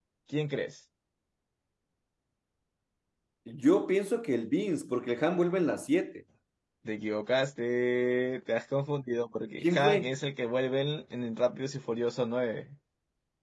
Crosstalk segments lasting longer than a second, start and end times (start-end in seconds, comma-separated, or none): none